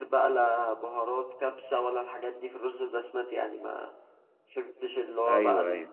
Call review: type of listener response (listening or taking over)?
listening